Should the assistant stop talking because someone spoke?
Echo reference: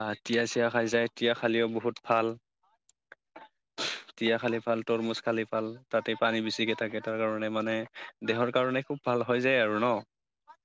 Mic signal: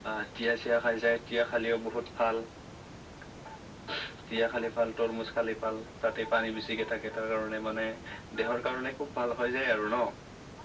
No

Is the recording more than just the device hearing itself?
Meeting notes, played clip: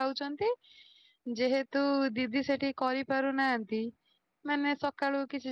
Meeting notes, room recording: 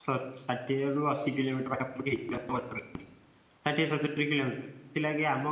Yes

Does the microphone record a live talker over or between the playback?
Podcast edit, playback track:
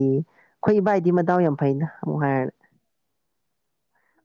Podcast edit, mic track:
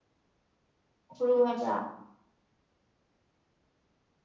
Yes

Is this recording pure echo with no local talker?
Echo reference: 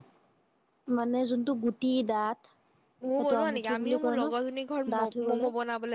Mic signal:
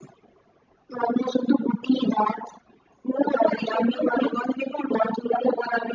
Yes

